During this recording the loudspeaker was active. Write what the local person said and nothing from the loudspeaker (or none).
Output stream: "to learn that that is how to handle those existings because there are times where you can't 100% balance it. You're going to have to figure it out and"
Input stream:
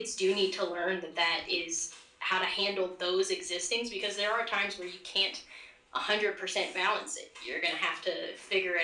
none